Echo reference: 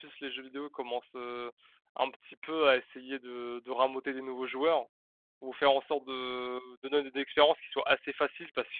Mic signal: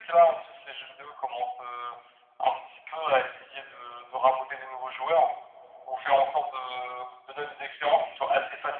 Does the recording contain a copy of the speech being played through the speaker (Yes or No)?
Yes